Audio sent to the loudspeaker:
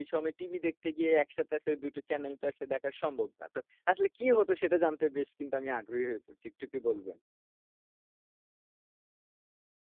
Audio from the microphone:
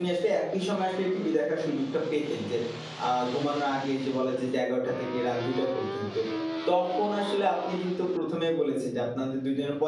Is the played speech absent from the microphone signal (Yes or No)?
Yes